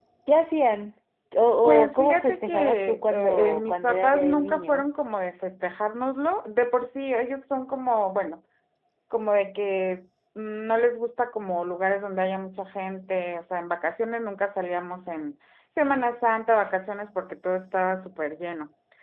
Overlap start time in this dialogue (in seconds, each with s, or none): 1.9 s